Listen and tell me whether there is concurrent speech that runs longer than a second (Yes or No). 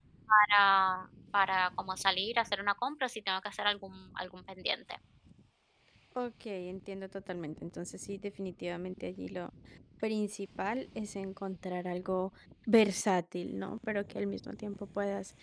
No